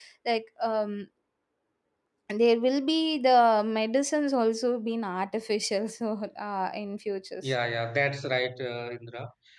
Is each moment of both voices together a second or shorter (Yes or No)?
Yes